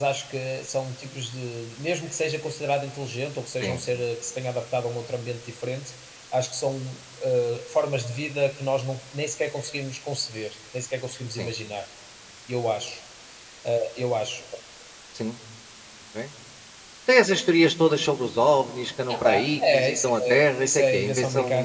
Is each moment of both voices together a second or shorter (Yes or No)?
No